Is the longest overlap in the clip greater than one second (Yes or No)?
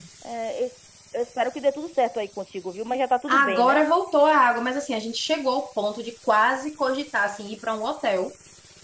No